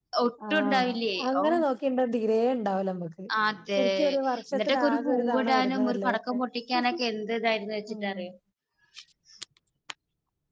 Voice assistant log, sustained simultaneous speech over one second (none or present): present